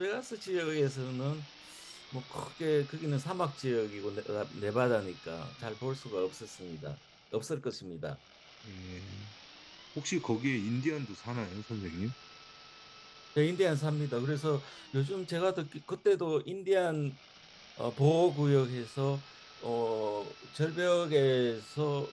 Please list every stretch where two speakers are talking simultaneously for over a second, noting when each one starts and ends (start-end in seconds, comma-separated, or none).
none